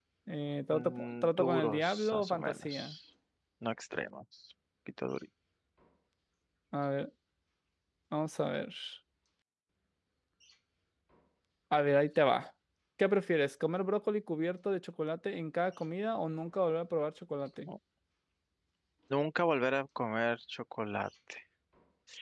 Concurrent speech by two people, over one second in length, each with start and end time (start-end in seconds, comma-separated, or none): 0.7-3.0